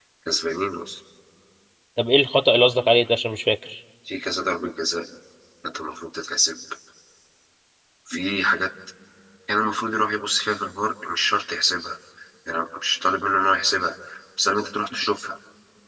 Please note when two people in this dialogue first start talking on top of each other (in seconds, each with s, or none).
none